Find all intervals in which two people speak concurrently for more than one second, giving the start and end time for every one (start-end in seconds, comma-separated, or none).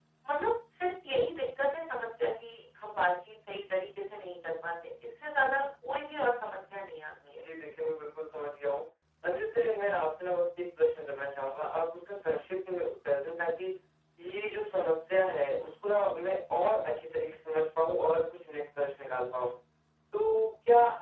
none